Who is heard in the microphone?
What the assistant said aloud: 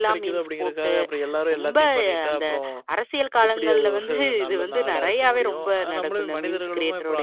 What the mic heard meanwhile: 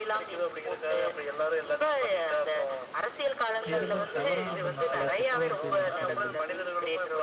both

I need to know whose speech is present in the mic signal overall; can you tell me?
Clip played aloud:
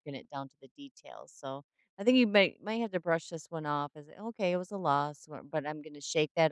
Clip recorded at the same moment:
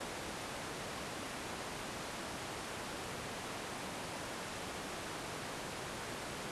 neither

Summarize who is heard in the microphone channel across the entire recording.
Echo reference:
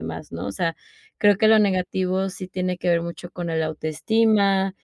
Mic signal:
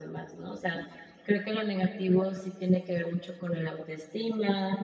echo only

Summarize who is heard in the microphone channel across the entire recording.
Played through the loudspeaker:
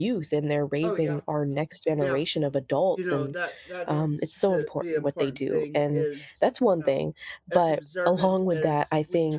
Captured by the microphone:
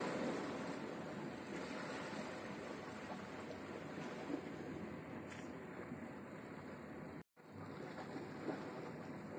neither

